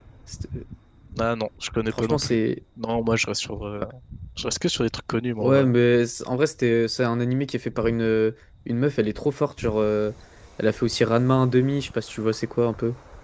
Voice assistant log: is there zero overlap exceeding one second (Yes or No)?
Yes